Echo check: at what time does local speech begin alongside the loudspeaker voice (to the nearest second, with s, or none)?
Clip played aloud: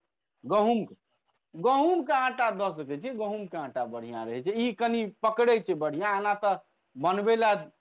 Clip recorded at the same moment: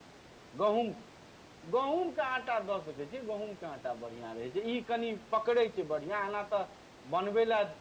none